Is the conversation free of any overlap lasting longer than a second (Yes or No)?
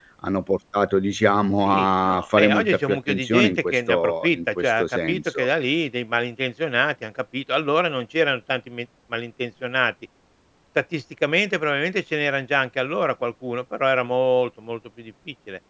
No